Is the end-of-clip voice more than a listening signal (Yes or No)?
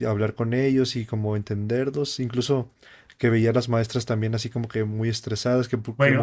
Yes